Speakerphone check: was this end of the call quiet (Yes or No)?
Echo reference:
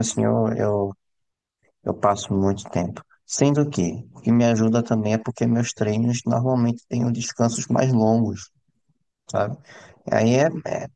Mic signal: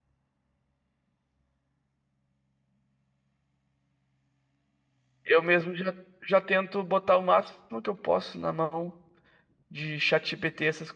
No